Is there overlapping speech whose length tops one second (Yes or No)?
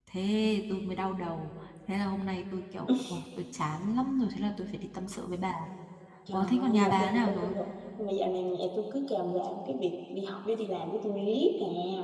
Yes